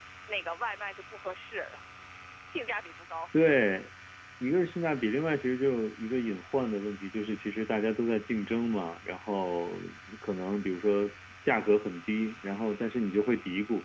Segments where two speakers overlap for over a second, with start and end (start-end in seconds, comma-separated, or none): none